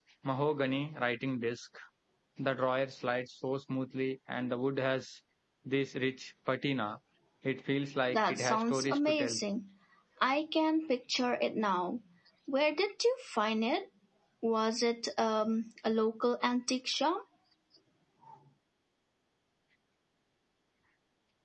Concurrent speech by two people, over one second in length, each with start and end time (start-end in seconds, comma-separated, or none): 8.1-9.4